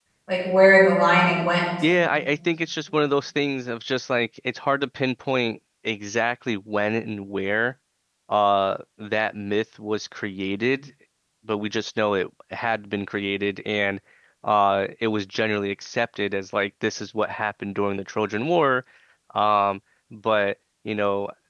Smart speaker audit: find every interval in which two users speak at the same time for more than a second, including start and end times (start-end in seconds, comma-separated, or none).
none